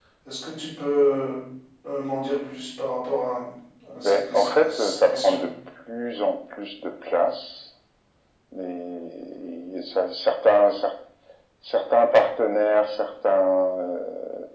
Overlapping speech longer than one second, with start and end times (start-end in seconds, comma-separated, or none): 4.0-5.4